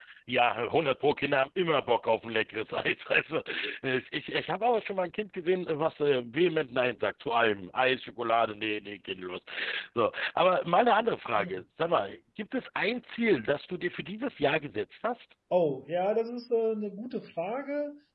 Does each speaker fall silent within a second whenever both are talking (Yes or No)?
Yes